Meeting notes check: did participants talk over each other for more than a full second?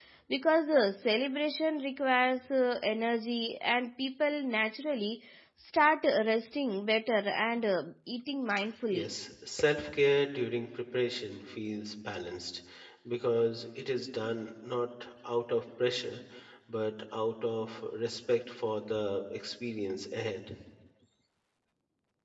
No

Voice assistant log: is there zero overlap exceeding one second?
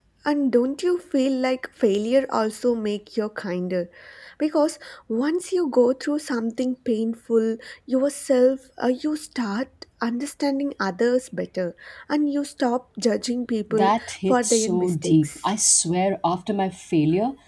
No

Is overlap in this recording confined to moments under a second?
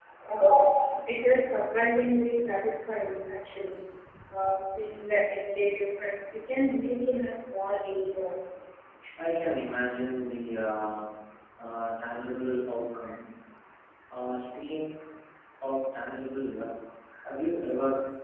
Yes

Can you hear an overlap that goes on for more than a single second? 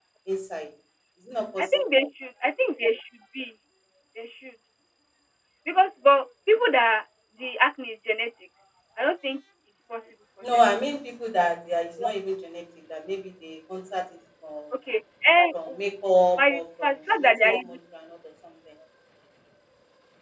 Yes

